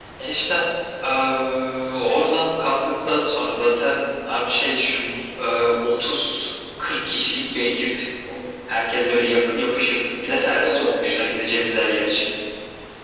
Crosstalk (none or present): present